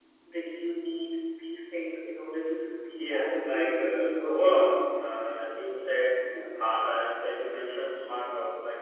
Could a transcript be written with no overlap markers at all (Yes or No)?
No